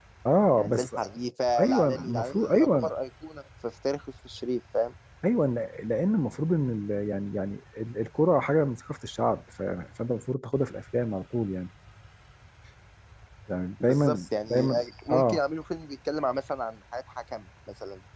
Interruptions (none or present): present